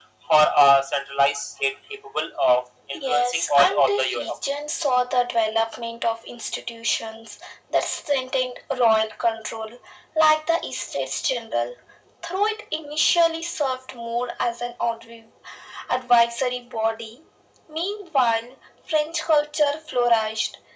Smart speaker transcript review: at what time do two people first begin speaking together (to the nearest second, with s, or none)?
3 s